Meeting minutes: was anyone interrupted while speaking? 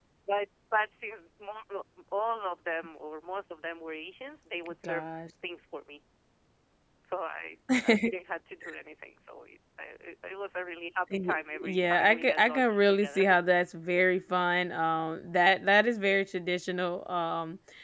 Yes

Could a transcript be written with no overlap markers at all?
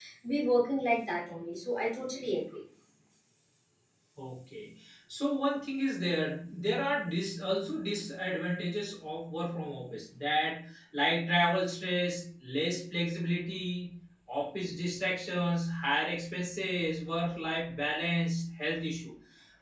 Yes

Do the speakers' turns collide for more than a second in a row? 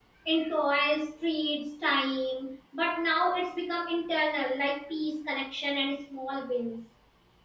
No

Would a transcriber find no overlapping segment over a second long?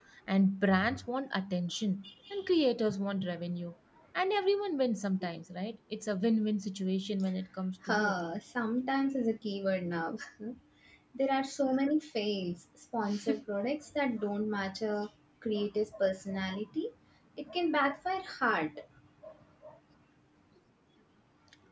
Yes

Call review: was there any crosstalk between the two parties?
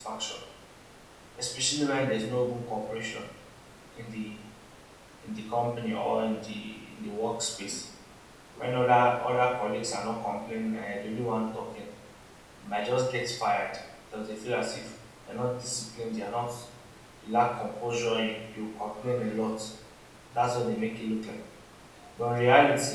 No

